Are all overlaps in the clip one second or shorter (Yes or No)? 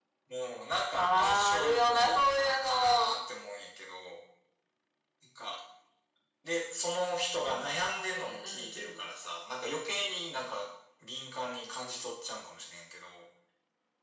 No